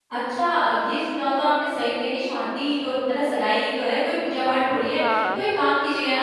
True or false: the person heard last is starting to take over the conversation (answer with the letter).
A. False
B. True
A